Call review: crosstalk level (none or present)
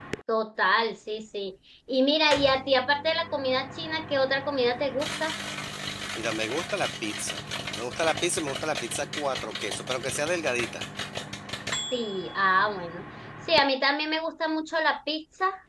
none